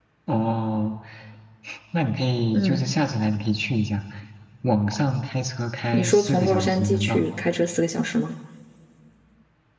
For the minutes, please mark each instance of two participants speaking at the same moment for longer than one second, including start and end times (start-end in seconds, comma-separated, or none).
5.9-7.2